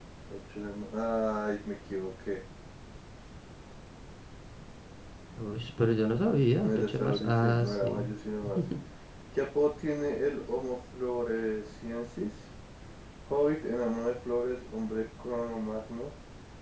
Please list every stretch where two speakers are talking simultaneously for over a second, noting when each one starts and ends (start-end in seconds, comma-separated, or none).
6.6-8.1